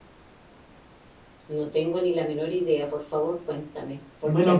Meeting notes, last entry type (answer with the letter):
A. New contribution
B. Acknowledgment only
A